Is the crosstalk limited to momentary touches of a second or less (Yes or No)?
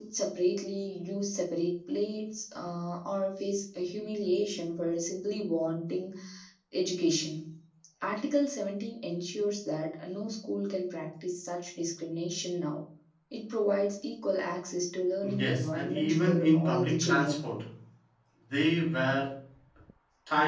No